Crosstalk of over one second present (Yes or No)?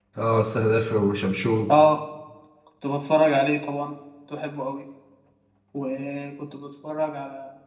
No